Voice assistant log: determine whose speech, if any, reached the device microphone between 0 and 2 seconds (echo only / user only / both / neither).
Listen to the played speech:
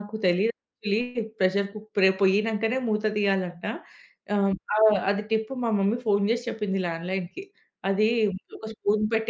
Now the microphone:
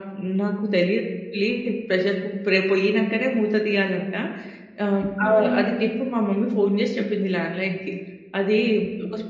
echo only